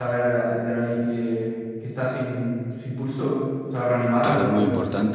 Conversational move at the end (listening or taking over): taking over